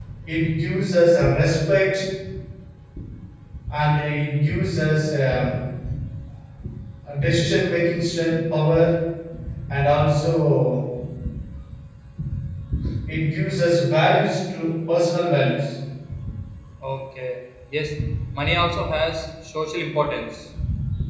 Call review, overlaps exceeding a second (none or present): none